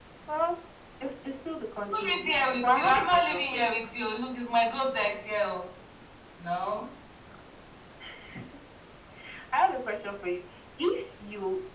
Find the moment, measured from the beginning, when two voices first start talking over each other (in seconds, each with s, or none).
1.9 s